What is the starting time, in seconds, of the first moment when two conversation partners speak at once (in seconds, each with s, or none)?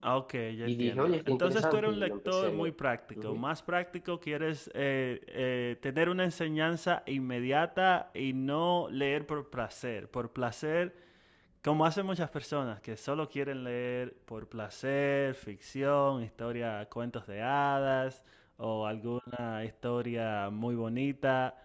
0.6 s